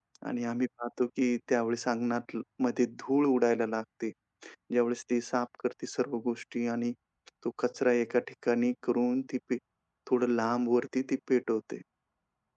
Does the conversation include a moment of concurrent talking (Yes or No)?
No